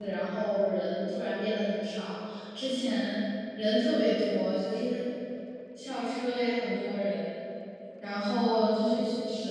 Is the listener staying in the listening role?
Yes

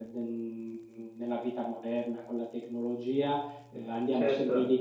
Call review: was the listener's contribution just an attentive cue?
Yes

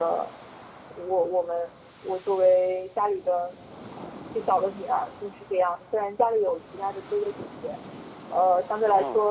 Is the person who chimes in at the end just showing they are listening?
Yes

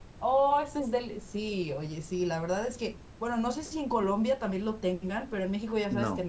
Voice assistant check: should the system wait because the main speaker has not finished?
Yes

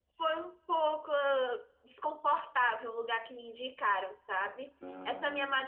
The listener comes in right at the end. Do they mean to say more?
No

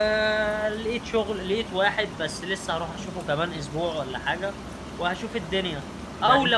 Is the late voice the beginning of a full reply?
No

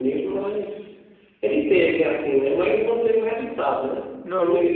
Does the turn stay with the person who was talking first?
Yes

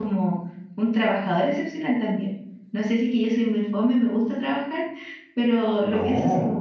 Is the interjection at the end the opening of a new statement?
No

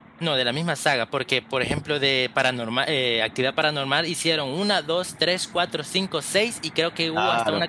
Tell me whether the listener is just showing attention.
No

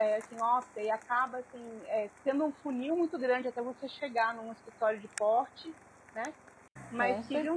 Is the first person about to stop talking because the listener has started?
No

